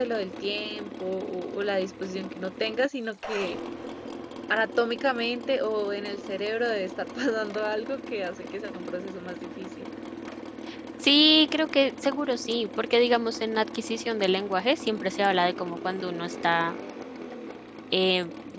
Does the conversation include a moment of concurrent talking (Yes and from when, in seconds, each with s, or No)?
No